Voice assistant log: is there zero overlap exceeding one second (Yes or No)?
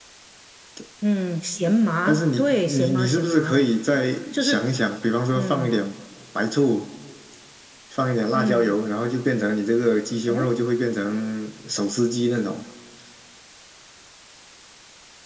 No